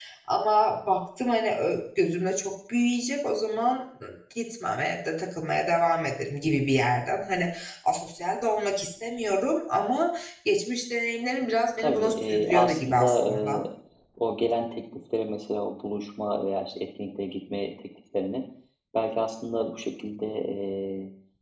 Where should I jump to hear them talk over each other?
11.8 s

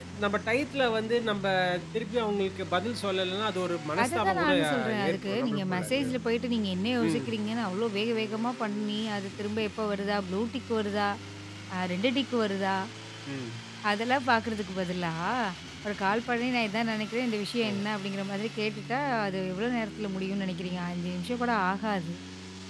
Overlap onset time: 4.0 s

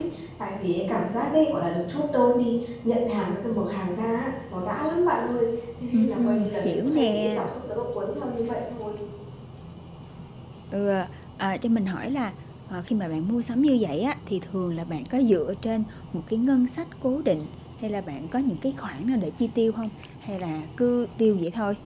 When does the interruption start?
5.9 s

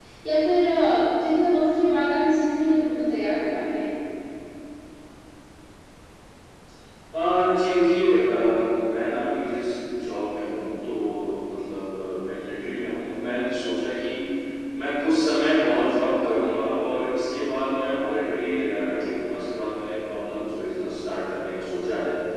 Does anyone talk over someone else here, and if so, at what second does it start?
none

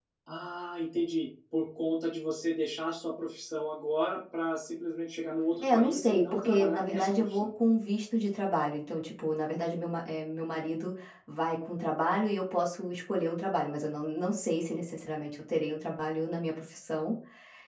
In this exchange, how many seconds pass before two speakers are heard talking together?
5.6 s

